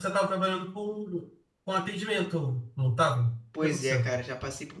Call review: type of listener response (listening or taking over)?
taking over